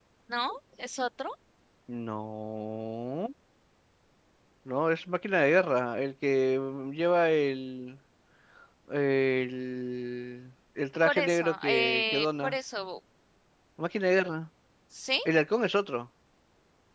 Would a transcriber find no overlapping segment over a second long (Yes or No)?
No